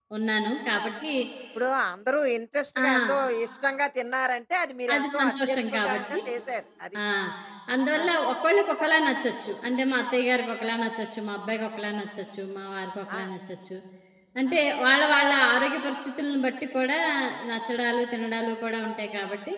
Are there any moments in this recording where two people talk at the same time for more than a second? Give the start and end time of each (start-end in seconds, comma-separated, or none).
4.9-6.2